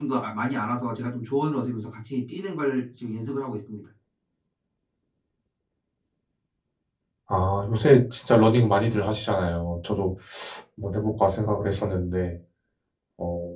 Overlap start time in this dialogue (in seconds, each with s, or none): none